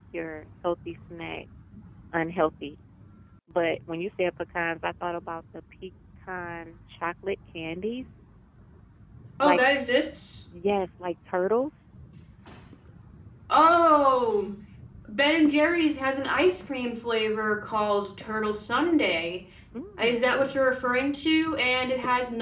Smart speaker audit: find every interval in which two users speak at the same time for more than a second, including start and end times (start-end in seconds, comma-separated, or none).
none